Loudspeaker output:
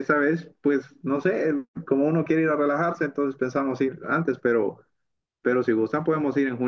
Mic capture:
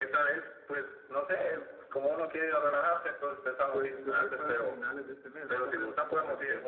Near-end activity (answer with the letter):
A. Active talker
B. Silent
A